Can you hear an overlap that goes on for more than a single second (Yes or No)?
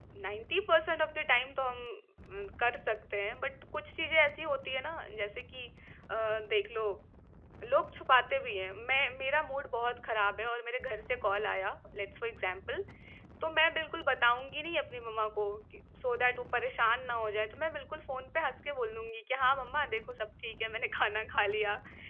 No